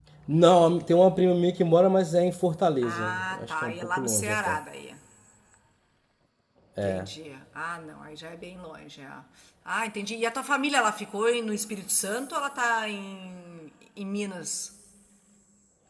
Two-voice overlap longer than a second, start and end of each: 2.8-4.6

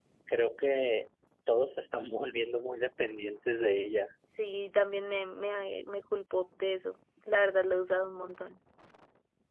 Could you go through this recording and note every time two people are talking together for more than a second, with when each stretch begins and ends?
none

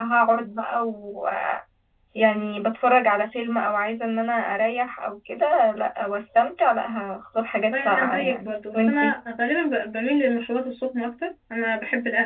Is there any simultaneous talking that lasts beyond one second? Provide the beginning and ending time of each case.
7.7-9.1

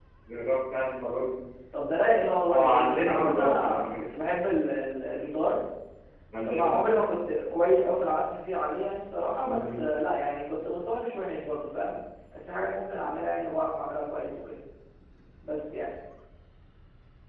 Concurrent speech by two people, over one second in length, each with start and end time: 2.5-4.0

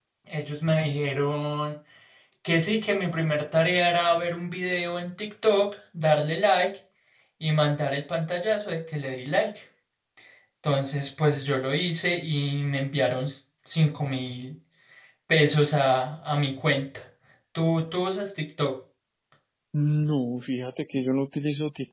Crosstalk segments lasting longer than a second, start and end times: none

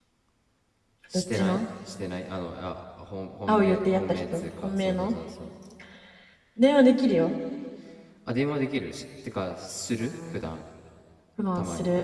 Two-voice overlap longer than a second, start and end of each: 3.5-5.1

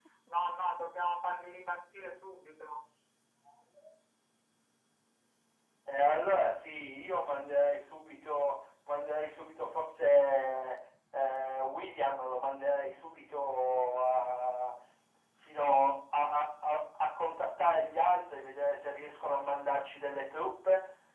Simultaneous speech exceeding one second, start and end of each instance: none

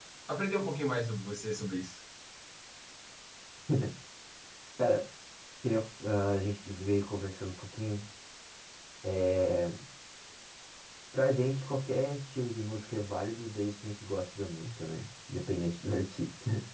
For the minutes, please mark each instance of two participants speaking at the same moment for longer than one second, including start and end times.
none

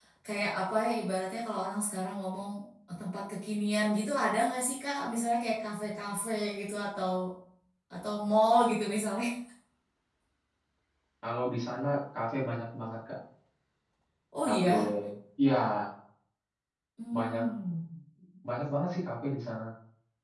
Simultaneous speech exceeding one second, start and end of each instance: none

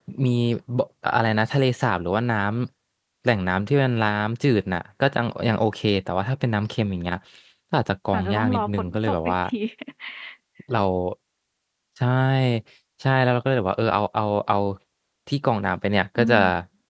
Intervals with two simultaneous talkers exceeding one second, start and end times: 8.1-9.3

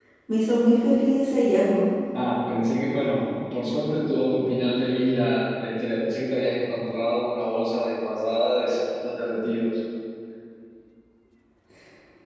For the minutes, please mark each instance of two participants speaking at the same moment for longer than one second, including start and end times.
none

